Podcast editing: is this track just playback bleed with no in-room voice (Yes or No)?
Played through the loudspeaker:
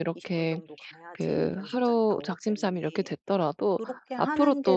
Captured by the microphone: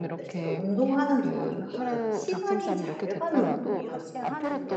No